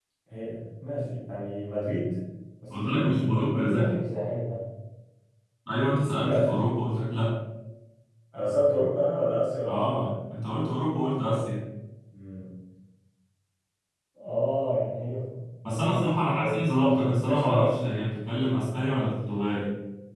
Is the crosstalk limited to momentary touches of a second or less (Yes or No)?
No